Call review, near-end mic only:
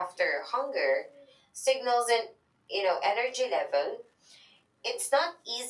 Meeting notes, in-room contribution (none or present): none